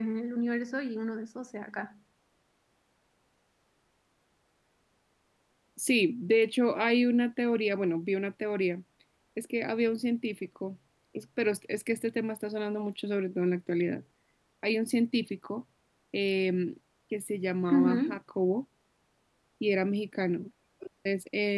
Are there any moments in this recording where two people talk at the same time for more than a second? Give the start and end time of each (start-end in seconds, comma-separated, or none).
none